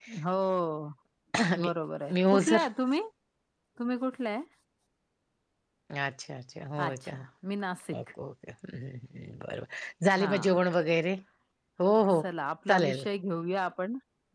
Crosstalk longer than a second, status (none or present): none